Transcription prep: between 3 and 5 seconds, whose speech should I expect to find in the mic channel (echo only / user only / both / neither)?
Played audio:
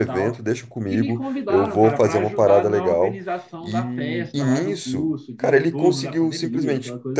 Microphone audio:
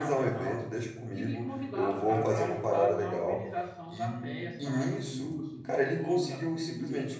echo only